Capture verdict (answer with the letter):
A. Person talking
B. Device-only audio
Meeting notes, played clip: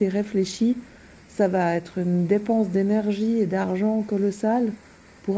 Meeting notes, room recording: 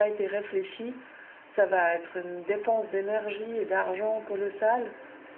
B